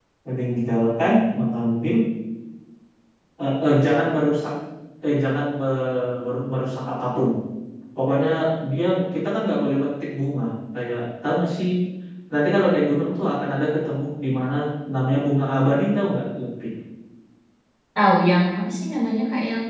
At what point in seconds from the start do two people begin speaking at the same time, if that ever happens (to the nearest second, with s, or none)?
none